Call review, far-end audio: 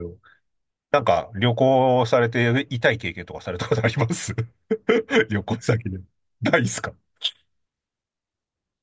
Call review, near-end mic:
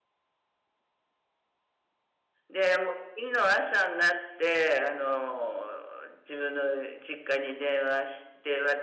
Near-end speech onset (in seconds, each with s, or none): 2.5 s